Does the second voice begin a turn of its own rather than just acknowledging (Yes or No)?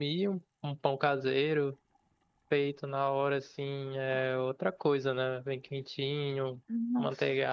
No